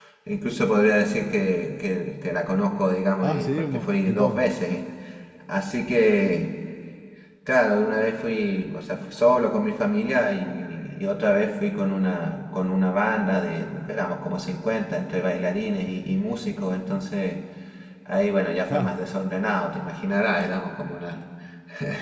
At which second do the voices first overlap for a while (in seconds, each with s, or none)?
3.2 s